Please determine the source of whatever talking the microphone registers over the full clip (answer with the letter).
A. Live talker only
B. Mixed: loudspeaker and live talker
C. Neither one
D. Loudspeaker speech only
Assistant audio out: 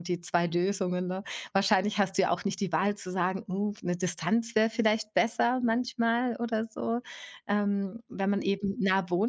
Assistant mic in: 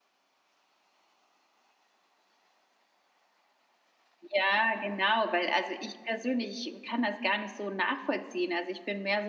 A